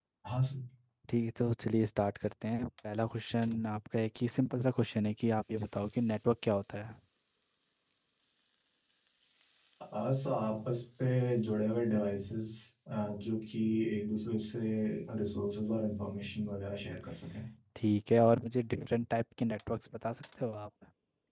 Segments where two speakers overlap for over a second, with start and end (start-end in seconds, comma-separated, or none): none